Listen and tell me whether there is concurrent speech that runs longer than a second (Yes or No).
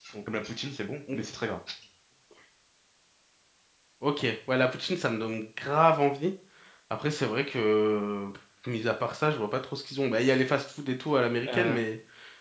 No